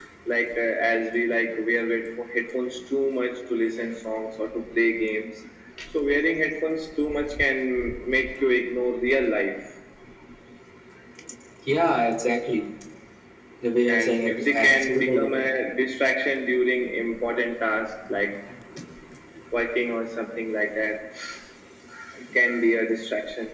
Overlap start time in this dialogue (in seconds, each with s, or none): 13.9 s